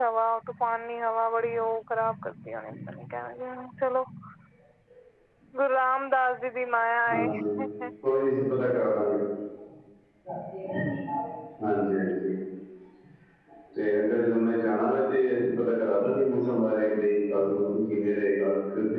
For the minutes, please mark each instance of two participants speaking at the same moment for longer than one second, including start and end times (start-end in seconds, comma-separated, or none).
none